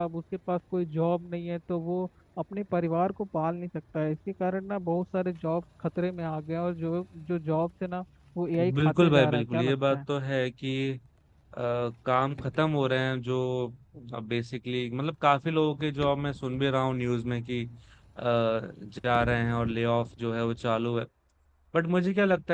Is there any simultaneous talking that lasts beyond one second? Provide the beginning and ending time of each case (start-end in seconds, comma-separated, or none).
8.8-10.0